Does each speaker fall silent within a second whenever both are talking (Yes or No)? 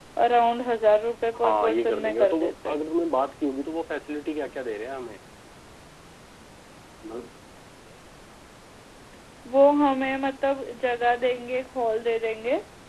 No